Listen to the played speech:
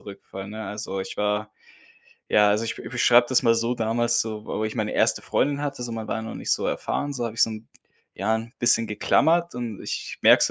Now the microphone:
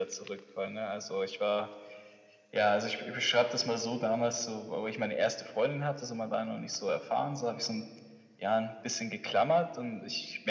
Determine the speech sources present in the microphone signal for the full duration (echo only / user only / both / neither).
echo only